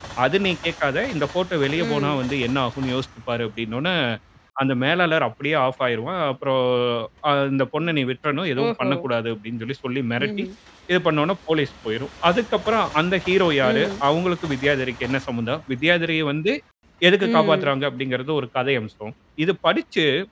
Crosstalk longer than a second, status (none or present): none